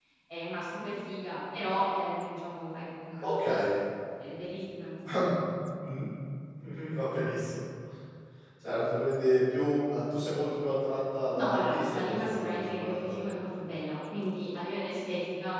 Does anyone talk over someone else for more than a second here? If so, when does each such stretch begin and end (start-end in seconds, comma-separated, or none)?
11.4-13.0